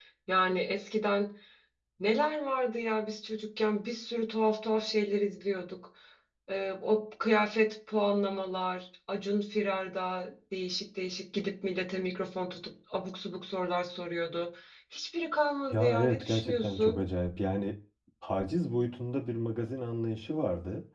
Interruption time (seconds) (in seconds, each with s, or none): 15.7 s